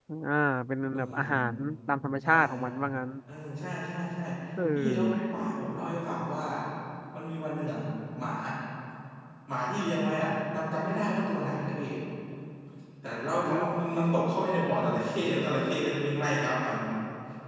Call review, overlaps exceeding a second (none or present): none